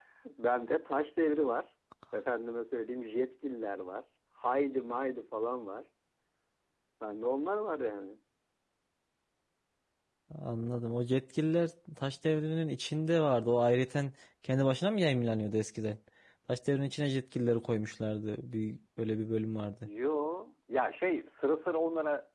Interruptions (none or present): none